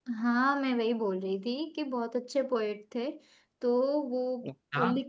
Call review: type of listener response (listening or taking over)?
listening